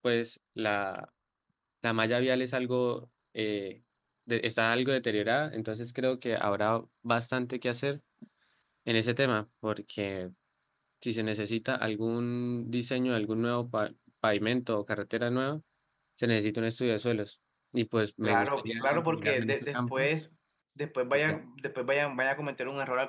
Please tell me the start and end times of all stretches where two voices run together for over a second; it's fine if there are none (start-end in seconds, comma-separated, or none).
18.2-20.1